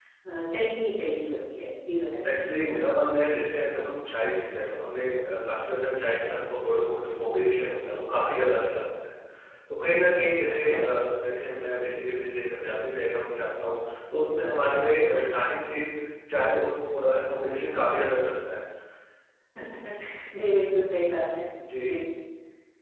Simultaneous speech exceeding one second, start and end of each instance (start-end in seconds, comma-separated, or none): none